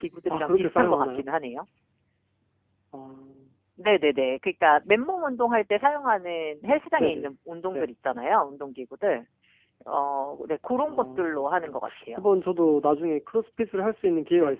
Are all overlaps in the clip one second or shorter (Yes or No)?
No